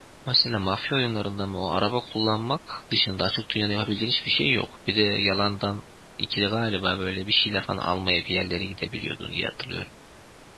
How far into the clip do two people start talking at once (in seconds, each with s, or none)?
none